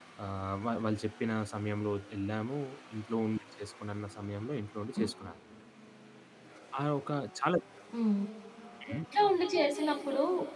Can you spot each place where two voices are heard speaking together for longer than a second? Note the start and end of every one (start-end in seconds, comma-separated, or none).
none